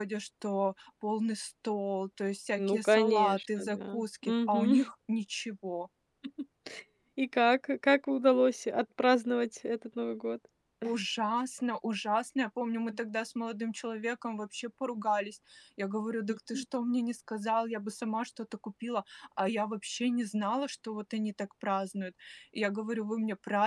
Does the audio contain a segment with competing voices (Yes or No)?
Yes